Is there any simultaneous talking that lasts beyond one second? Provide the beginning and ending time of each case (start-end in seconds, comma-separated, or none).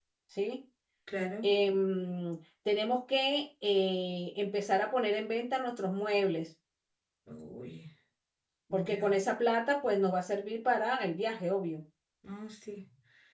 none